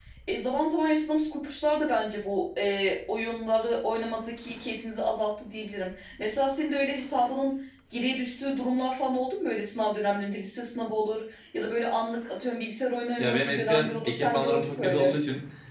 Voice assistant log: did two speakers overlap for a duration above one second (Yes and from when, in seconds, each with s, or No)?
Yes, from 13.2 s